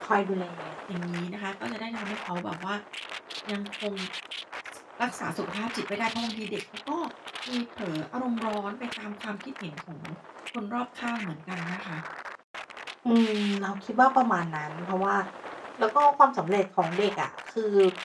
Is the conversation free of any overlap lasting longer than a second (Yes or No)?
Yes